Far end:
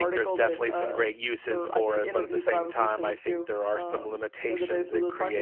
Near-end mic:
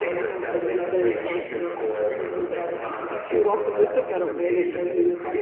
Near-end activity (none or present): present